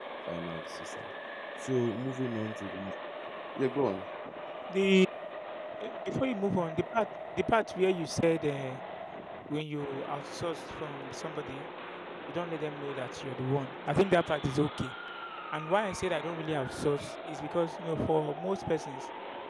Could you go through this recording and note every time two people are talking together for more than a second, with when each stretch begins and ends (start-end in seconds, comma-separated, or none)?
none